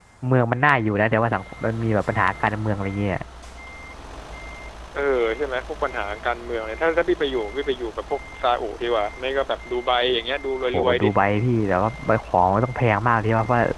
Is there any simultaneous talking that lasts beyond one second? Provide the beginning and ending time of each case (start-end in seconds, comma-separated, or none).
none